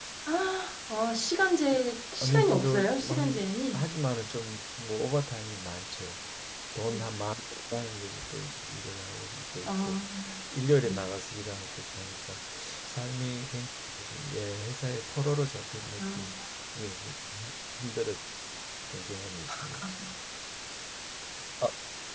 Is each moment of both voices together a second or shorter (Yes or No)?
No